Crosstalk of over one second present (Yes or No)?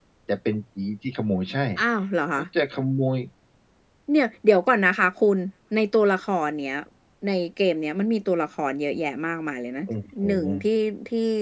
No